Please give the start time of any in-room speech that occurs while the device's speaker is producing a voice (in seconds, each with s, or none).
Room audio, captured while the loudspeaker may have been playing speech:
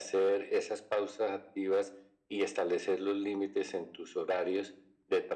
none